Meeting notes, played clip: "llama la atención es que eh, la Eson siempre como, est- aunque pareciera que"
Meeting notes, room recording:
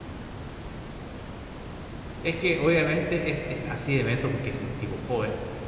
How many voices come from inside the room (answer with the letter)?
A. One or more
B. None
A